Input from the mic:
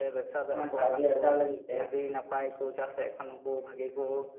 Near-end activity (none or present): present